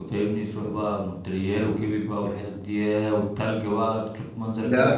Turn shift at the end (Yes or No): Yes